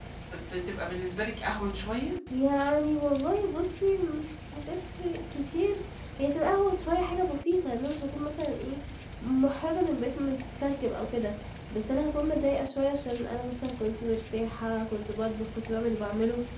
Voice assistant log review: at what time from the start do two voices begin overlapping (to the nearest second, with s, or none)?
none